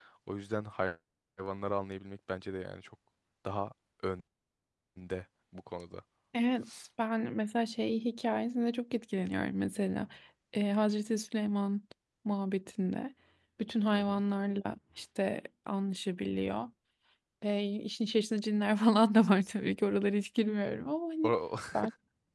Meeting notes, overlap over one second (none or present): none